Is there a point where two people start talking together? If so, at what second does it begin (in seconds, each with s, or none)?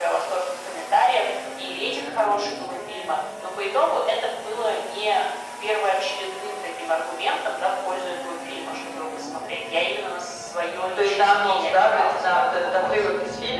11.0 s